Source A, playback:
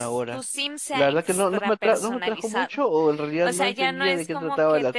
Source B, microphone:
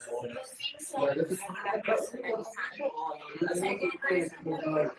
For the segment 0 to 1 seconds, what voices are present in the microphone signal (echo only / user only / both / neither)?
echo only